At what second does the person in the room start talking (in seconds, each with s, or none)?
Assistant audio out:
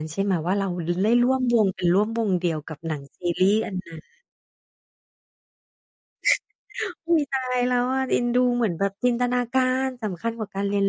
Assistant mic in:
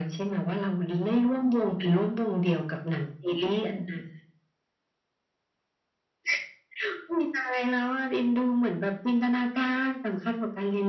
none